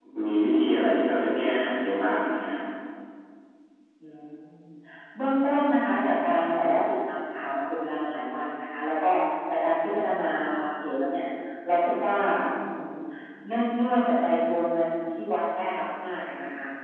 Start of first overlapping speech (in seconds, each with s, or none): none